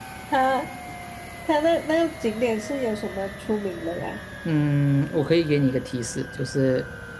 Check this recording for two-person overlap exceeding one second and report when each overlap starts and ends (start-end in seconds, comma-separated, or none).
none